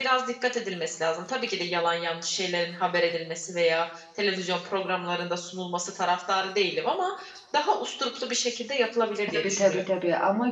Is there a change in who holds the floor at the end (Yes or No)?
Yes